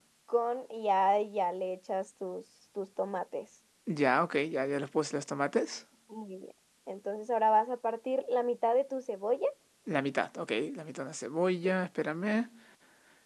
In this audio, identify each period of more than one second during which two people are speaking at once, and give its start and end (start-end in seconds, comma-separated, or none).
none